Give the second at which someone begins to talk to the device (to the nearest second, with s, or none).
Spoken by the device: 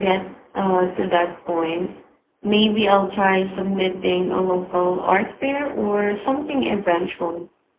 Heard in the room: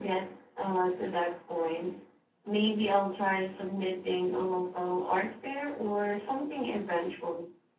none